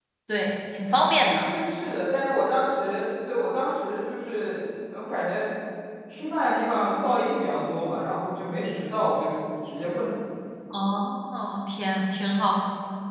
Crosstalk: none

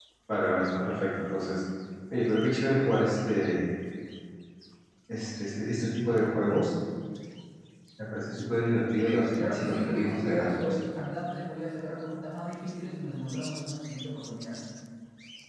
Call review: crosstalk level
present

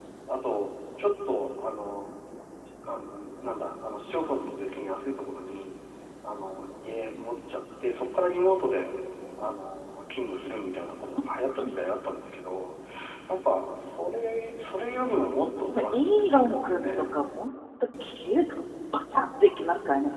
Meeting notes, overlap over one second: present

